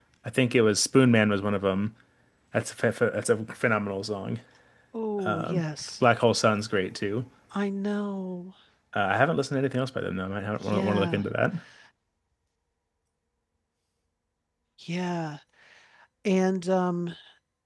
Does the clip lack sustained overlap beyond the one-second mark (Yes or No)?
Yes